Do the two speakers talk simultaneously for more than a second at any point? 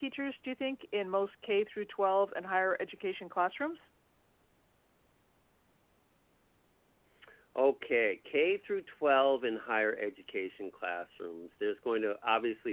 No

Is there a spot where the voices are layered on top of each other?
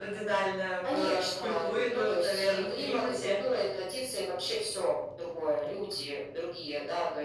Yes, from 0.9 s

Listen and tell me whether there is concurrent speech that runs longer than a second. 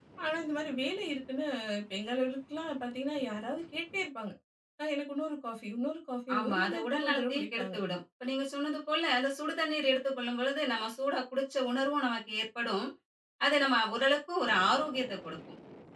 Yes, from 6.3 s

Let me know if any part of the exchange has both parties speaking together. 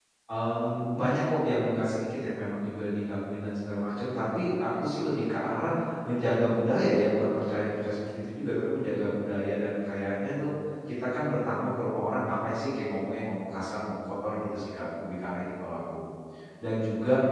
No

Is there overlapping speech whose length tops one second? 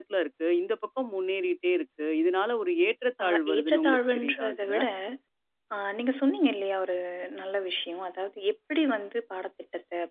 Yes, from 3.2 s

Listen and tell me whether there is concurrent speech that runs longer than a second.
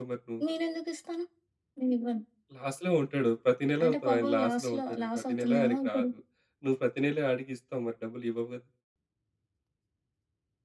Yes, from 3.8 s

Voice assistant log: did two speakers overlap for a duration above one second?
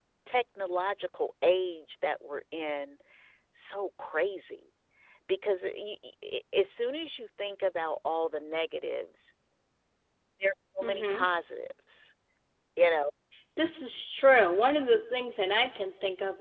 No

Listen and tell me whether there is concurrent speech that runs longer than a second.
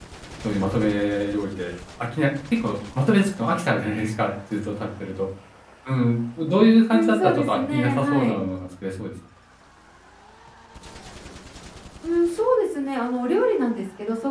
Yes, from 6.9 s

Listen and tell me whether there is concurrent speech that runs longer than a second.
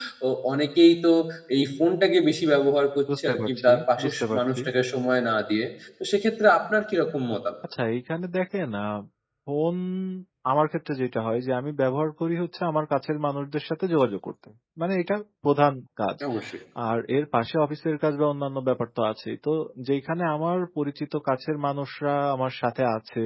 Yes, from 3.1 s

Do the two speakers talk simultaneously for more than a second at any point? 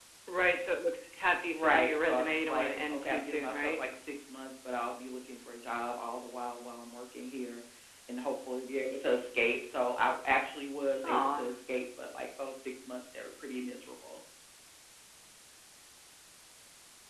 Yes, from 1.5 s

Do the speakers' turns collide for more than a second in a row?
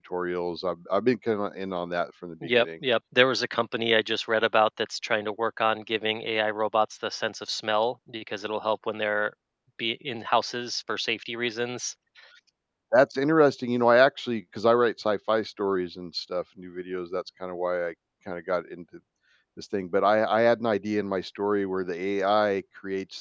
No

